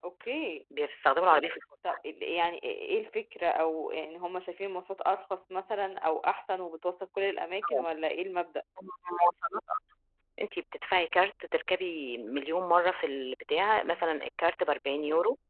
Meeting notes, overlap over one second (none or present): none